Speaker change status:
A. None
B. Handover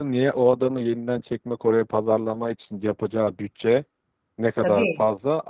A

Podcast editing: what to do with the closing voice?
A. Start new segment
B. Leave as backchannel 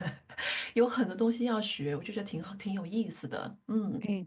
A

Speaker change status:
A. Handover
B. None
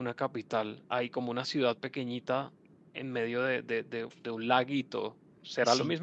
A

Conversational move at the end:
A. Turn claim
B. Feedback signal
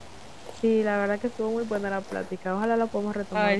A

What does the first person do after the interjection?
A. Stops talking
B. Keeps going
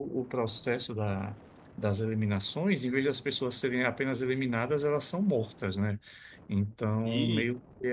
B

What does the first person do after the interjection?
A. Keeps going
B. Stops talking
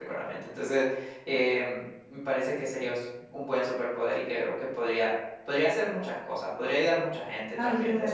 B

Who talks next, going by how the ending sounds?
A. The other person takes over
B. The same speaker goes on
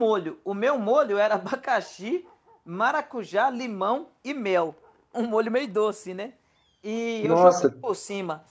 B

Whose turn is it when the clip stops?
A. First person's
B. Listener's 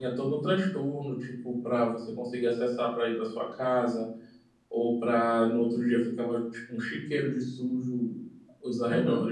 A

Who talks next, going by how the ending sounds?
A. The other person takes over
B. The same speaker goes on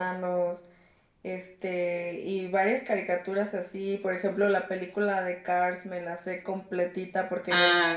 B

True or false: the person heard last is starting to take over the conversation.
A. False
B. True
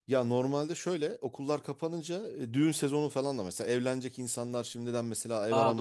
A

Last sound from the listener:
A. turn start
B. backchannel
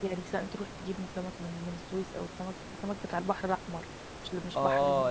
A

